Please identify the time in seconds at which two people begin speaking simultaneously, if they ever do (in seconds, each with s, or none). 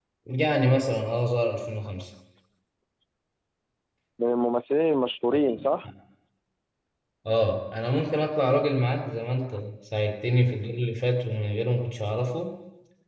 none